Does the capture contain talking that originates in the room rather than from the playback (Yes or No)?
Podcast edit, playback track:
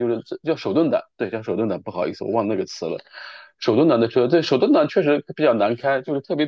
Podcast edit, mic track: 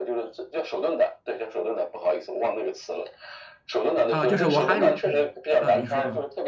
Yes